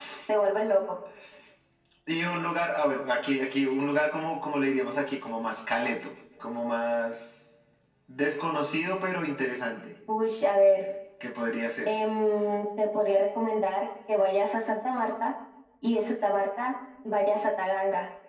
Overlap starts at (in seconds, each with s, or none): none